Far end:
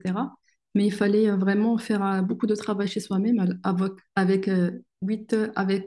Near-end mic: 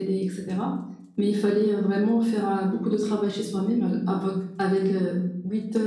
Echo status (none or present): present